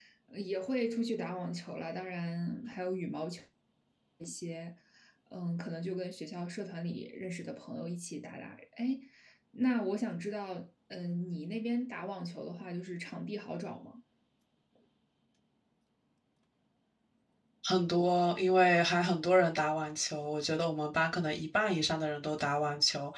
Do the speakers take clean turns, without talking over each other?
Yes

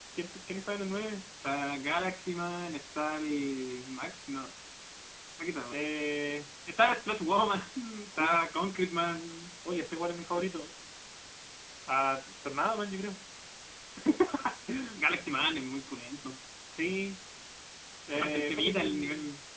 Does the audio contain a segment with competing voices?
Yes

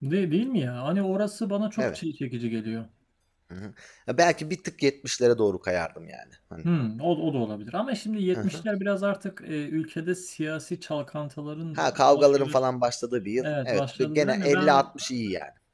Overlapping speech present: Yes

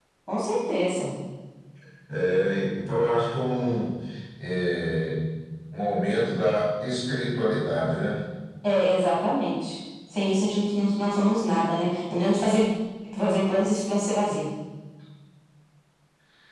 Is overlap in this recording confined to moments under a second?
Yes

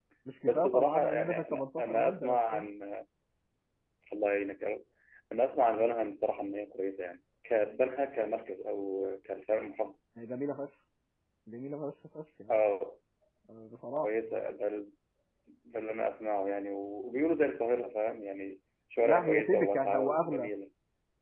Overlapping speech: Yes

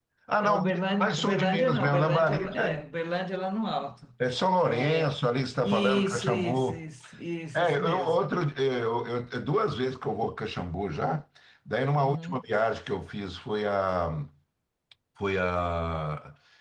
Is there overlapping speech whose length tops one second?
Yes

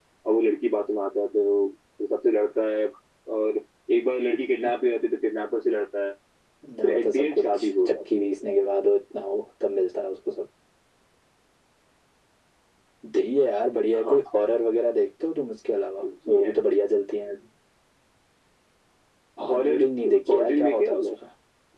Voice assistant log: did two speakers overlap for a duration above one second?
Yes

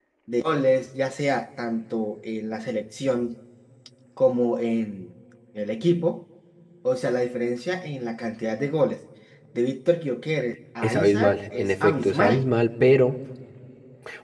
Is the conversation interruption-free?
No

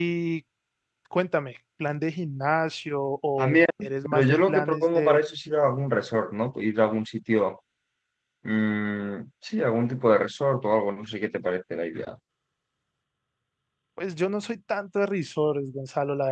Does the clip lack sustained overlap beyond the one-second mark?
No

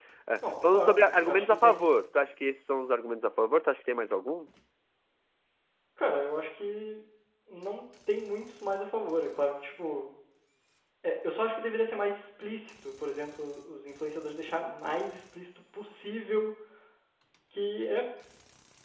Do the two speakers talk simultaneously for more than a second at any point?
Yes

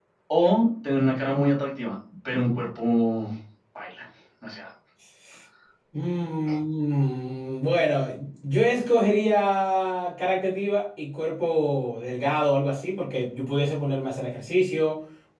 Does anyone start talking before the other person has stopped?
No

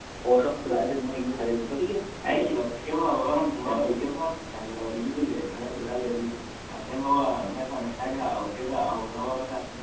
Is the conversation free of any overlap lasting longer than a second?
Yes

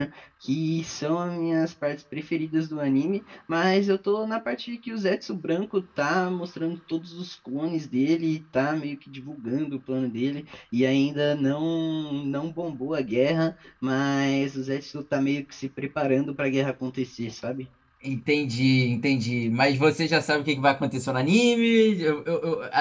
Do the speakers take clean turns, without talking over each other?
Yes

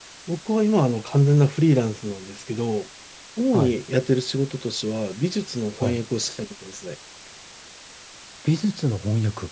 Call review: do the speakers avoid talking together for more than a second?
Yes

